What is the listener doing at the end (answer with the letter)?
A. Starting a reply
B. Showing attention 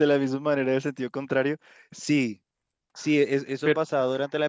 B